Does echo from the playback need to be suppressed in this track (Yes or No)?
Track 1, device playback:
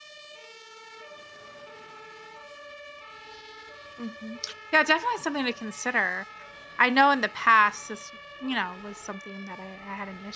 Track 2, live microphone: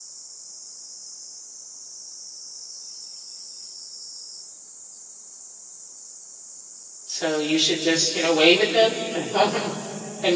No